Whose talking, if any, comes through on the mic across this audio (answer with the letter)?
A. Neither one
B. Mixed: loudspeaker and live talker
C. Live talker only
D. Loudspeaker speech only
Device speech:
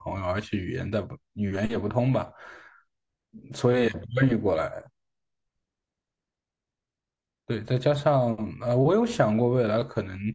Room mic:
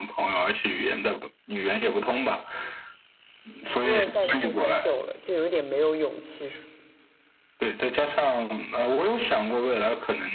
B